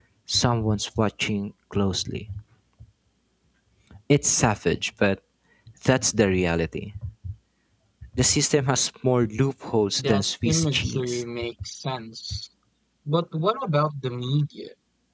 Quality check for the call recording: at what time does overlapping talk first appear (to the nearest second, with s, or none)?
10 s